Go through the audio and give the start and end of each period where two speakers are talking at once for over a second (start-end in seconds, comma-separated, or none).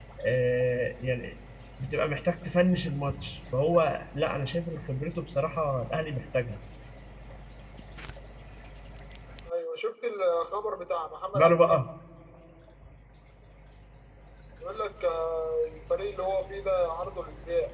none